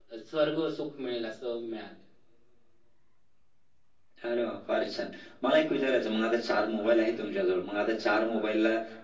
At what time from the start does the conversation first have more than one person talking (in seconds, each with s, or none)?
none